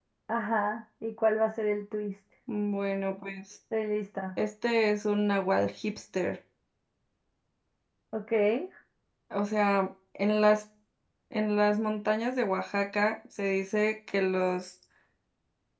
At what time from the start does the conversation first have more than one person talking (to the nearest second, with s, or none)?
none